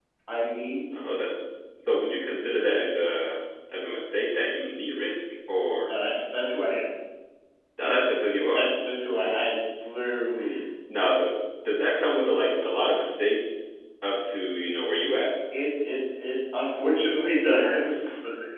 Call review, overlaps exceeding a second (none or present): none